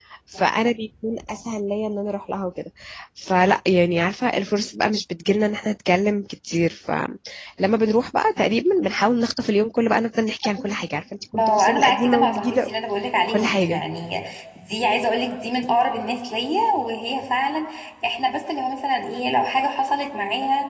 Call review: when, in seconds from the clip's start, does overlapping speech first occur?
11 s

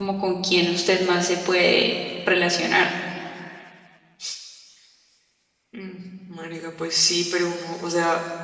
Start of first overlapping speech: none

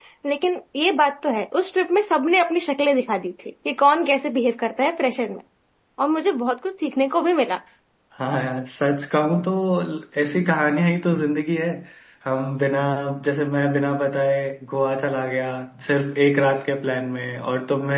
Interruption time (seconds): none

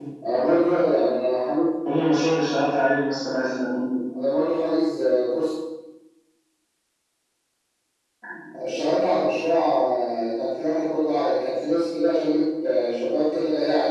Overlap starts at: none

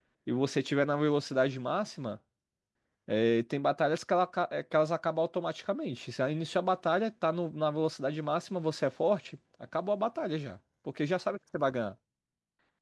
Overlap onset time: none

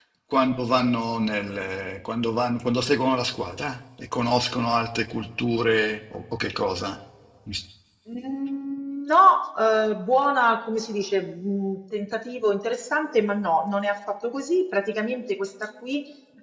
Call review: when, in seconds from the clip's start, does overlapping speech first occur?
none

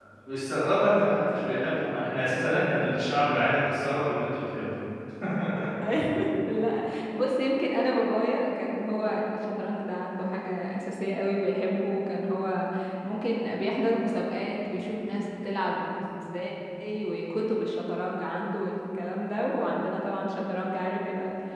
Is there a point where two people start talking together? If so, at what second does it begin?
none

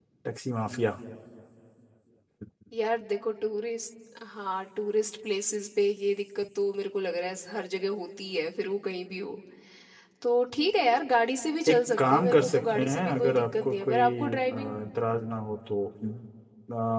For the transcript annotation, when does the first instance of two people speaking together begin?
12 s

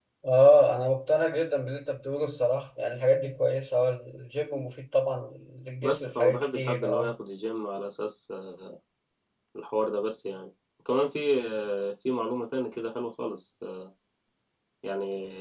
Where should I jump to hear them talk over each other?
6 s

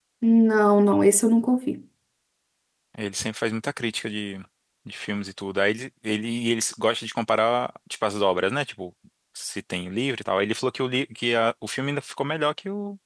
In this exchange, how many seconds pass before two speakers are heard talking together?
none

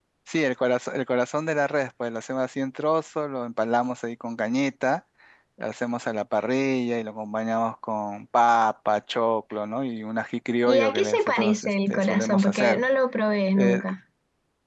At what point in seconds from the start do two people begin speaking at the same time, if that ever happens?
11 s

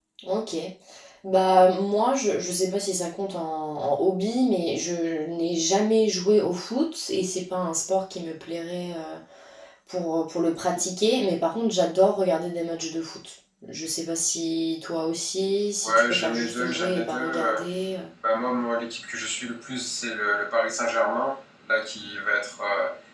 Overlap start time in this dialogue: 16 s

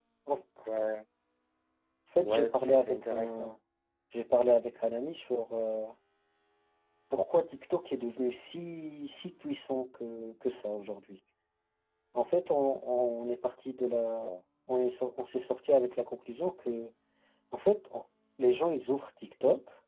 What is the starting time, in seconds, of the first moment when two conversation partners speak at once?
2 s

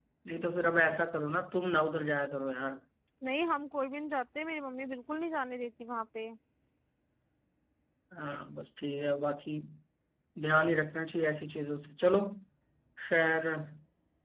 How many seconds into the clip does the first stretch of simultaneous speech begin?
none

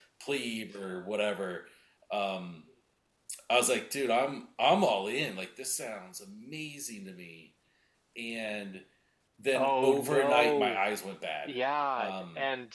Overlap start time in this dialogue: 10 s

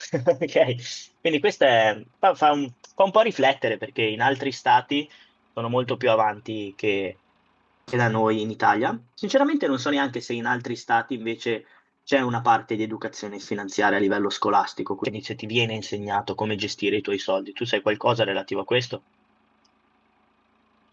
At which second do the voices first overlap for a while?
none

